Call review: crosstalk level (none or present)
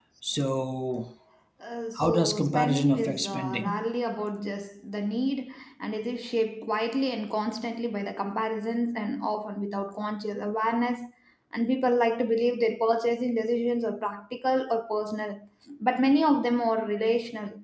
present